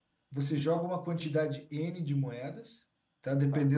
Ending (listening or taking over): listening